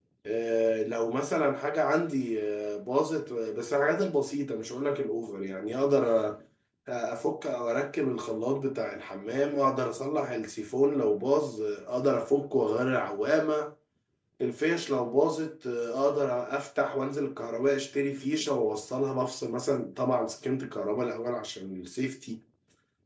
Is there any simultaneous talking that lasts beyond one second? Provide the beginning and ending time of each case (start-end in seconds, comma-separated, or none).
none